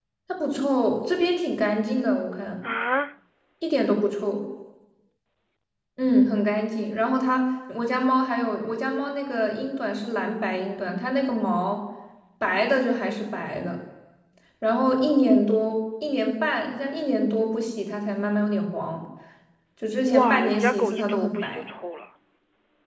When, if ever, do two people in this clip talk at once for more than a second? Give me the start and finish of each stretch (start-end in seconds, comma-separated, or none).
20.1-21.6